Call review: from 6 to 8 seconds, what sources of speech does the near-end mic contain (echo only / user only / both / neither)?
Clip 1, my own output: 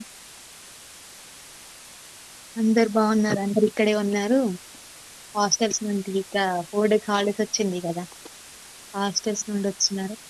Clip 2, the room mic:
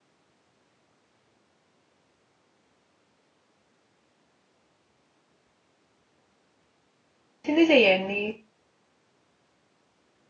user only